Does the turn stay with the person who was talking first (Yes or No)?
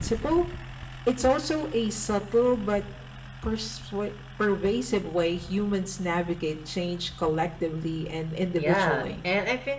No